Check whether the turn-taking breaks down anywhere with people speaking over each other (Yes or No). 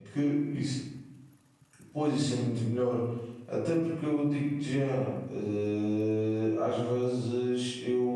No